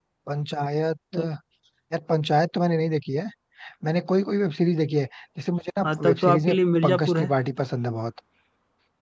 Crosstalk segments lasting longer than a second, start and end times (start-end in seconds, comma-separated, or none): 5.8-7.3